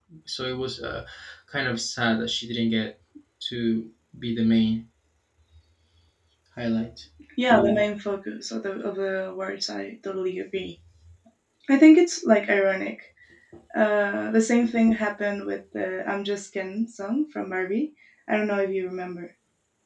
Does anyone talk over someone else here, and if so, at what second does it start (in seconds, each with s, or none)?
none